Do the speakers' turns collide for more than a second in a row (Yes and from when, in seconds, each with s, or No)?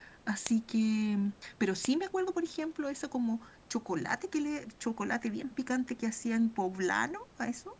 No